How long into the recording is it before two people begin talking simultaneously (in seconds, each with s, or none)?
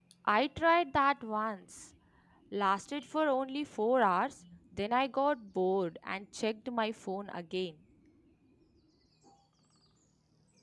none